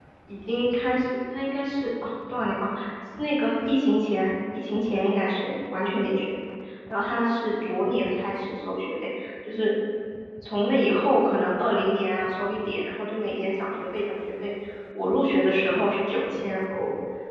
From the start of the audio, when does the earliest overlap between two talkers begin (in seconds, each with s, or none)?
none